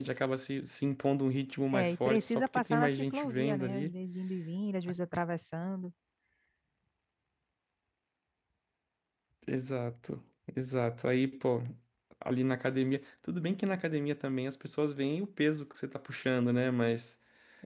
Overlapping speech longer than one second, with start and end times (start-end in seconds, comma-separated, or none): 1.7-3.9